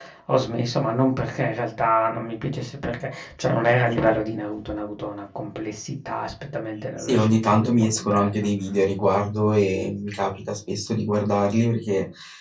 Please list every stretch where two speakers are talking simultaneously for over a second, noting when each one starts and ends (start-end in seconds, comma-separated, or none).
7.0-8.5